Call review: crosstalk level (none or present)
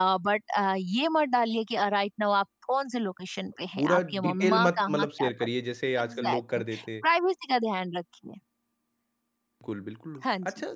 present